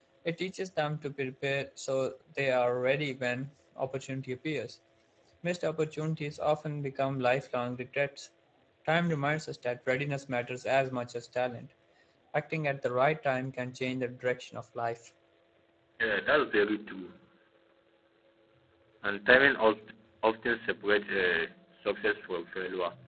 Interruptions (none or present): none